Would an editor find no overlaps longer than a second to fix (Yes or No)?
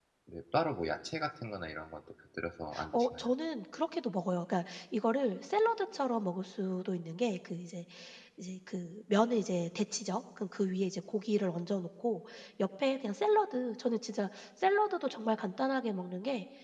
Yes